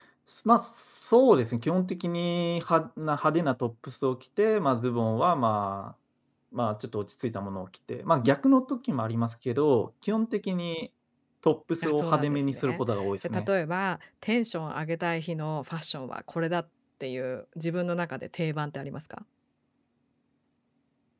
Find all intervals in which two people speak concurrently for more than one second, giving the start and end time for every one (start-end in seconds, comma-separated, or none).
11.8-13.5